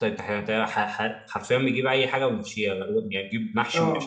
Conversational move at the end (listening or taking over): taking over